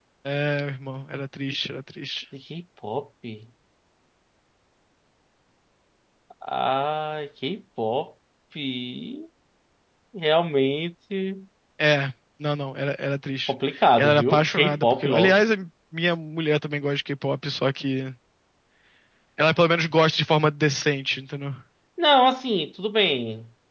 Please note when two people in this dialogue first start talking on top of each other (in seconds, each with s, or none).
14.0 s